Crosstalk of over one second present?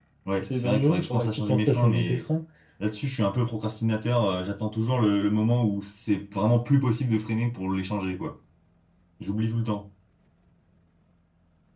Yes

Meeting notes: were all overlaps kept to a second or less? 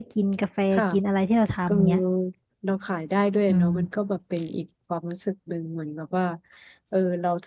Yes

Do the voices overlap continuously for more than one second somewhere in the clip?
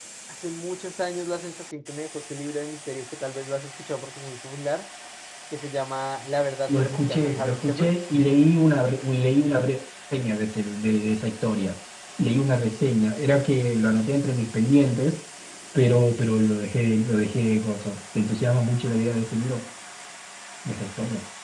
Yes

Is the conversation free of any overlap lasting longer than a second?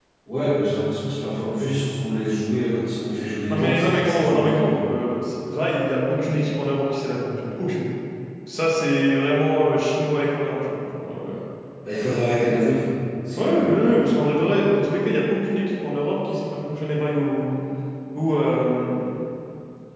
No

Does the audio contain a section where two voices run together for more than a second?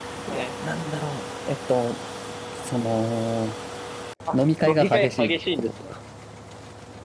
Yes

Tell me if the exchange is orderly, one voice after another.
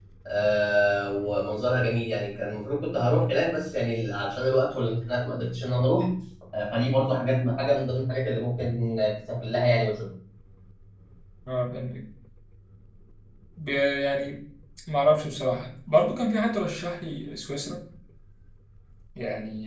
Yes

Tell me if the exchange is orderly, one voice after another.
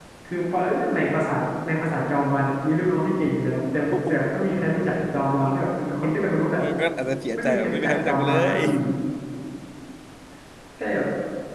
No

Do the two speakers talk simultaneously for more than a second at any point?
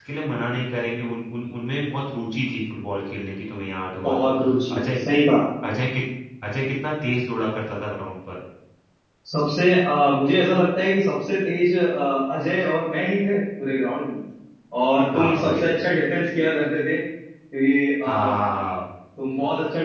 No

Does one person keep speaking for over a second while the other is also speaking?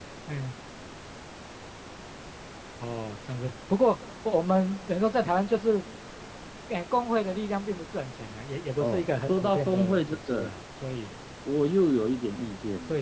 Yes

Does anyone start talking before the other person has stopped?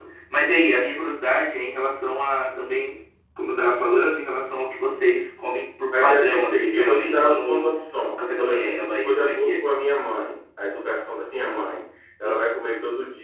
Yes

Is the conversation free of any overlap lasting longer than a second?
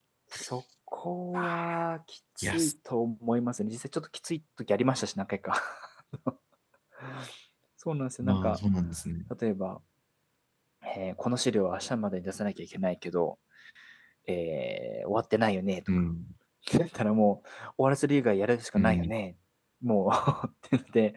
Yes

